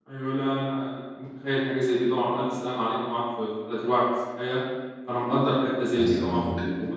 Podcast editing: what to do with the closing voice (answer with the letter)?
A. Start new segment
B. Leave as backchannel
B